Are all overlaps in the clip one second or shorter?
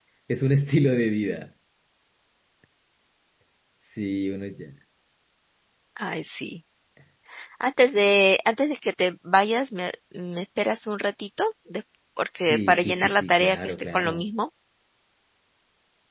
No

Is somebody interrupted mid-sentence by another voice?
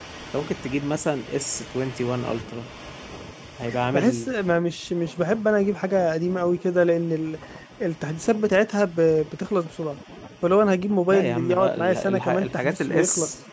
Yes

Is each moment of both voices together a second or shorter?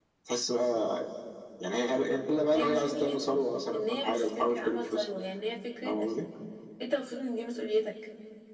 No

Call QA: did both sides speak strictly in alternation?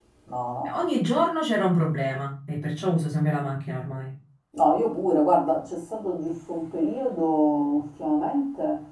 Yes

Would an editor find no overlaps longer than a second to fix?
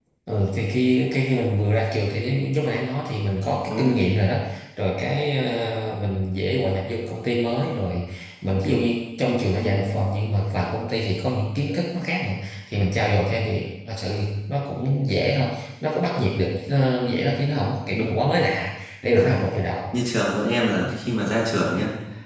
Yes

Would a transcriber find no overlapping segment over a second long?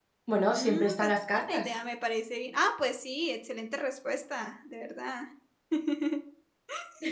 No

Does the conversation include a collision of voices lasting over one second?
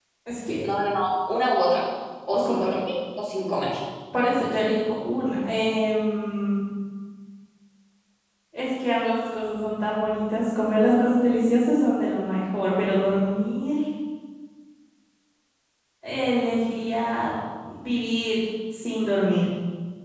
No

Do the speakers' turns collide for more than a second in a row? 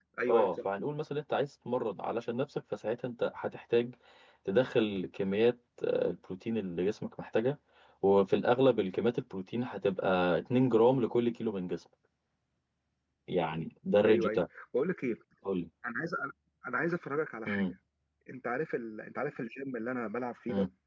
No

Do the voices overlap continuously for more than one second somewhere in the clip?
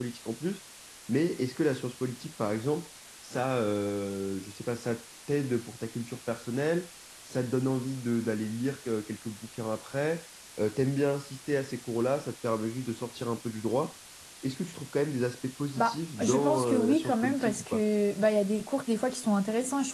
Yes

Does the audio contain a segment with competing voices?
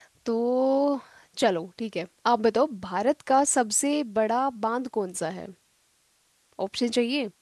No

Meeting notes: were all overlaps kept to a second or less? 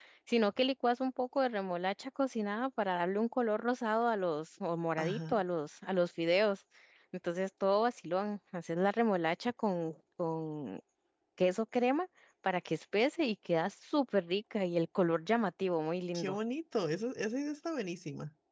Yes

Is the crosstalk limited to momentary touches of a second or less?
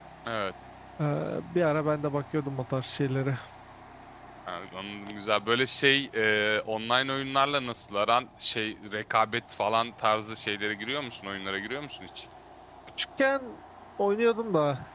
Yes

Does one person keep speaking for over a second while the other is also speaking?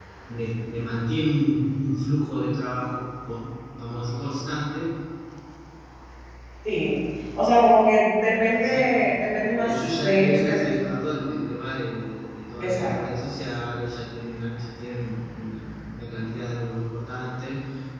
Yes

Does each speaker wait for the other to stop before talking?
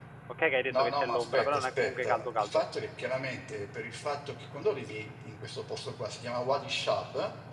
No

